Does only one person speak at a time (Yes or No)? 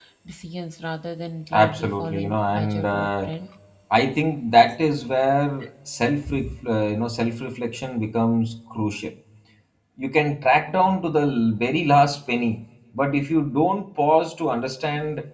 No